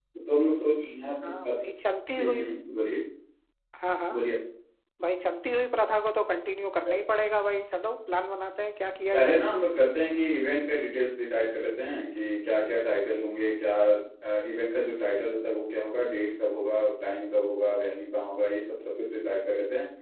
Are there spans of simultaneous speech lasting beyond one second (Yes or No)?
No